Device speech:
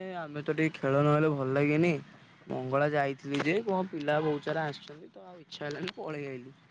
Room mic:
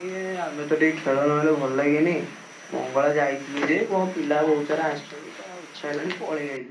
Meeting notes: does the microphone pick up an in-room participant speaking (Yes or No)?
No